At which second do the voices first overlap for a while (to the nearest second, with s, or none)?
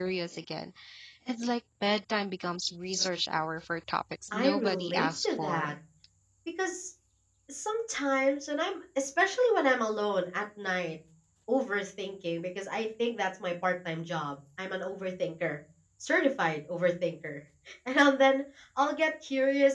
4 s